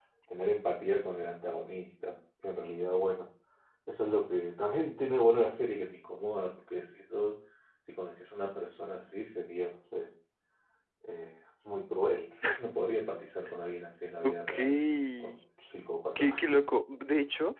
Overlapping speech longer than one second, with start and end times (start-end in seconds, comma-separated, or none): none